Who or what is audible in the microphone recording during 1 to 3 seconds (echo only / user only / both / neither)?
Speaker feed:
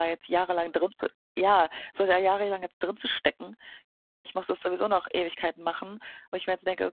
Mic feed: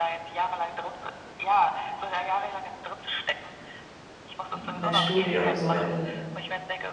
echo only